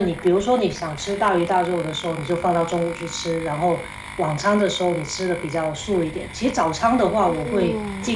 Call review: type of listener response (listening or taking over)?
listening